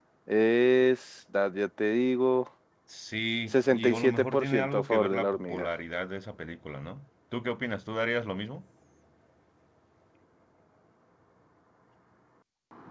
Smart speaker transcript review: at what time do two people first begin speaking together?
3.5 s

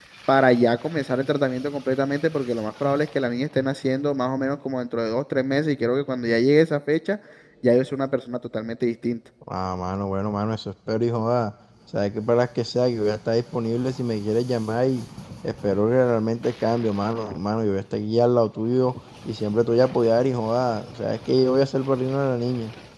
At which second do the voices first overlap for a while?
none

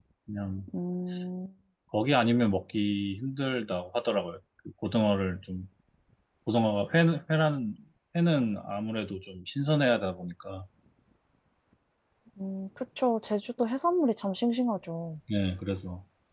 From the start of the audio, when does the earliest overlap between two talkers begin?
none

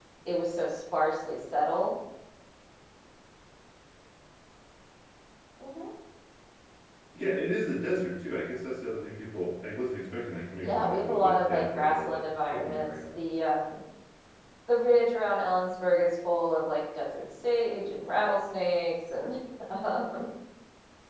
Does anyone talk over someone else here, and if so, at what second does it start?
10.6 s

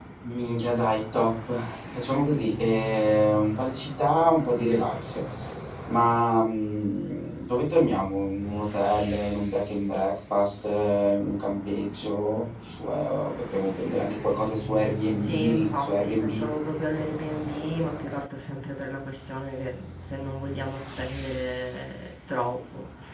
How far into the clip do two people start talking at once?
15.2 s

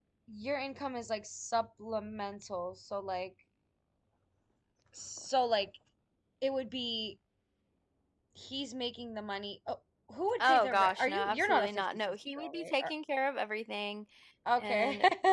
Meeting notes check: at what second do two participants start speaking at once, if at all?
10.4 s

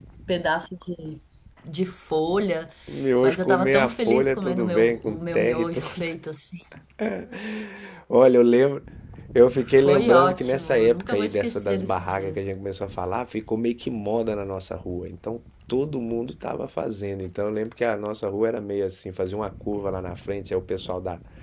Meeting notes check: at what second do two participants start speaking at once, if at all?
3.2 s

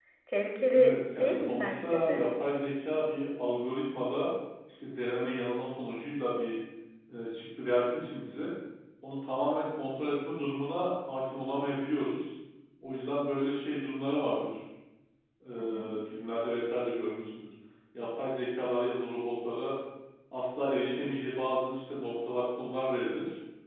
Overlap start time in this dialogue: 0.8 s

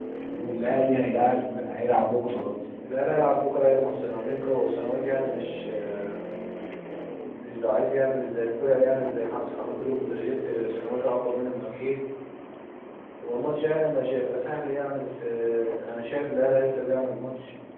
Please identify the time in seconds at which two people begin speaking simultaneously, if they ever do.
none

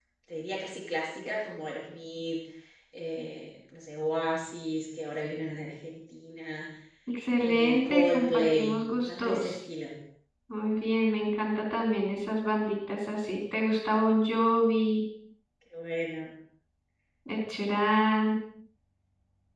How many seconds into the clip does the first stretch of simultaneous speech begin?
7.4 s

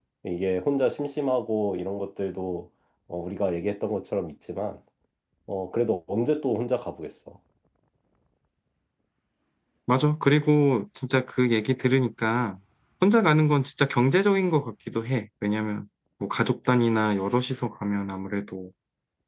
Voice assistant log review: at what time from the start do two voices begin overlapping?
none

